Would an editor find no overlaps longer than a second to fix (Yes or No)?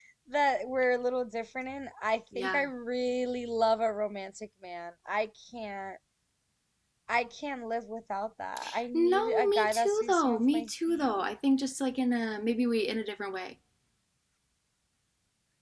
No